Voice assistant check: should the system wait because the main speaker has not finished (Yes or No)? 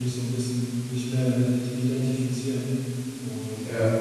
Yes